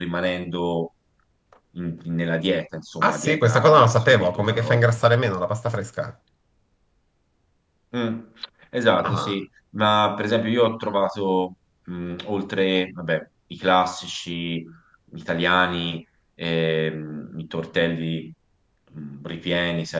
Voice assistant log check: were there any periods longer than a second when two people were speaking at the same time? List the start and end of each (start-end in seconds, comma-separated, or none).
3.0-4.9